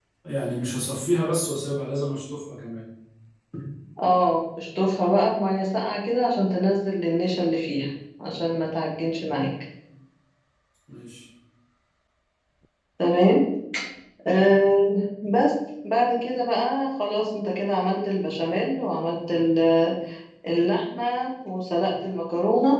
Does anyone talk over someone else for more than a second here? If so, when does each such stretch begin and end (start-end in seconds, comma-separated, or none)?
none